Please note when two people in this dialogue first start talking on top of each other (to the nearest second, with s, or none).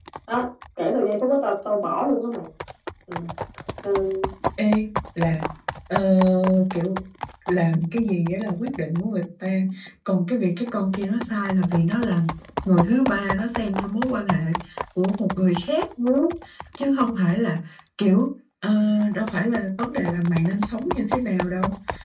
none